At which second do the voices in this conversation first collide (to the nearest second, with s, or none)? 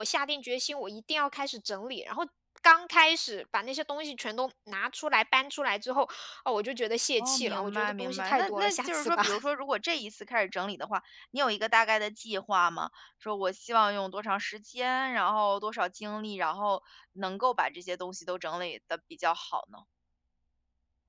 7 s